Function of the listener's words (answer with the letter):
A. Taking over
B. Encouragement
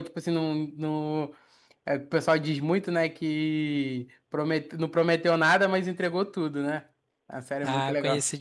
A